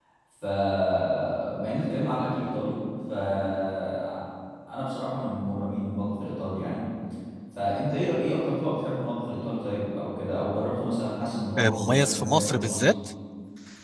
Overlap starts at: 11.6 s

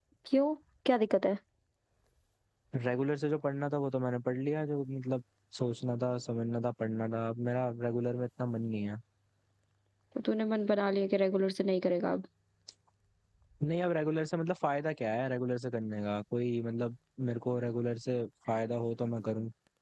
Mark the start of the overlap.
none

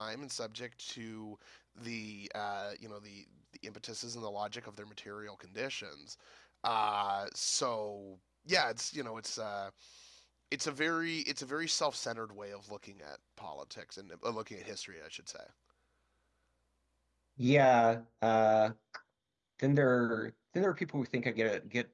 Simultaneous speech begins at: none

